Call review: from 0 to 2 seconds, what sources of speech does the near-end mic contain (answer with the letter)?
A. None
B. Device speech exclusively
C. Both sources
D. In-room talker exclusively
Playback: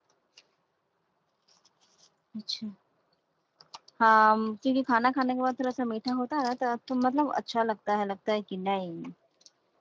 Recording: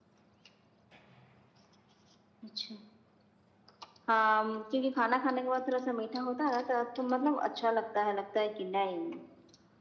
A